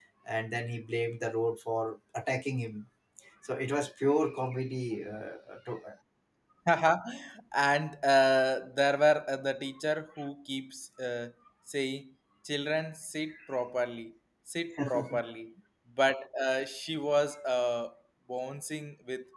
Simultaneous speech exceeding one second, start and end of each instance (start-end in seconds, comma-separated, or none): none